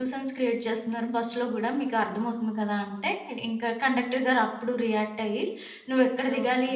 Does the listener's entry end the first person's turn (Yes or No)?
No